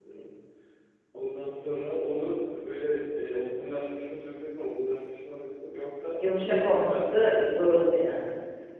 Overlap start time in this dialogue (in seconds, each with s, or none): 6.2 s